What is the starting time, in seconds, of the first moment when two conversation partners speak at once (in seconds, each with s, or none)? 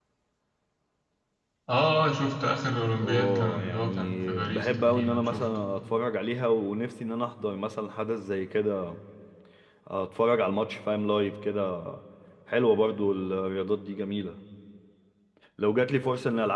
3.0 s